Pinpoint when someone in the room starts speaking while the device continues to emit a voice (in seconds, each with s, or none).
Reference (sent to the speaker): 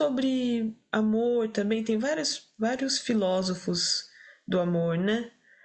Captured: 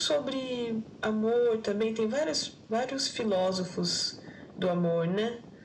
none